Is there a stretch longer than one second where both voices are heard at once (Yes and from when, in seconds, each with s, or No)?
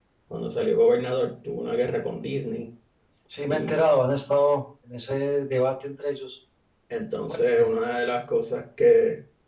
No